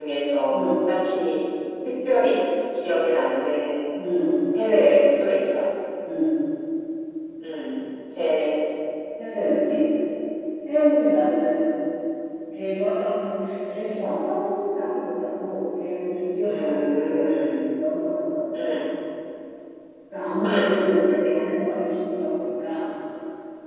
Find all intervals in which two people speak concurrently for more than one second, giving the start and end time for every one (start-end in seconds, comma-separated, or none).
16.4-17.6